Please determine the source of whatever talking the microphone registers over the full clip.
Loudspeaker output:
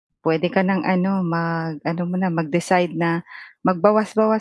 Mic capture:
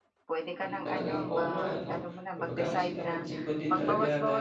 both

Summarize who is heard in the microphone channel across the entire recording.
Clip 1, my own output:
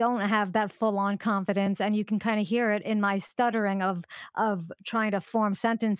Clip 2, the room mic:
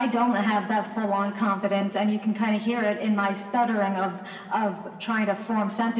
echo only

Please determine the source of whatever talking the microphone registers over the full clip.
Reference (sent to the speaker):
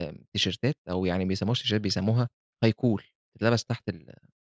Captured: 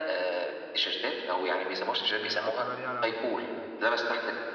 both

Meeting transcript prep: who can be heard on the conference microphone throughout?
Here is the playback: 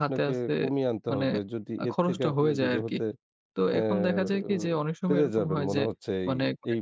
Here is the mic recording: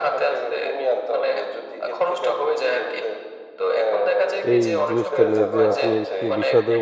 both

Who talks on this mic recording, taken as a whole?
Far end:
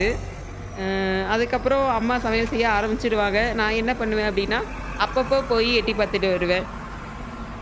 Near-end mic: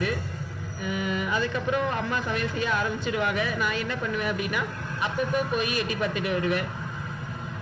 echo only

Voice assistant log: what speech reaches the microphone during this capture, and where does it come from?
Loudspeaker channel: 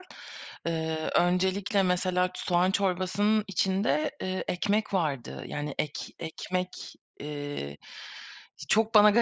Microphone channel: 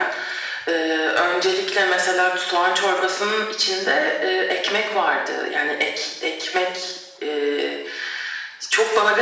echo only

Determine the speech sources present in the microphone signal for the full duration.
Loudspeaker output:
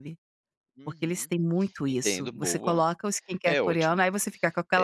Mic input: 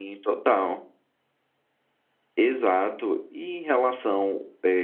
user only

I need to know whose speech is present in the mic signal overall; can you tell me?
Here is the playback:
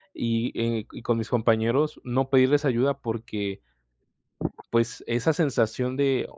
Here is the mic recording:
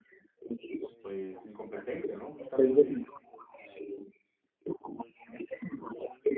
both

